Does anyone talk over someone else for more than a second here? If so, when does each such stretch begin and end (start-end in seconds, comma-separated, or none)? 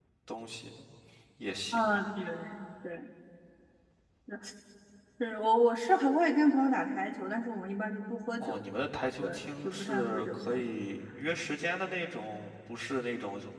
9.2-10.7